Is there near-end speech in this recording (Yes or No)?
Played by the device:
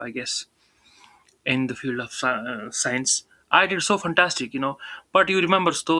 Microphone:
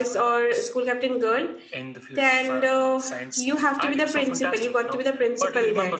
Yes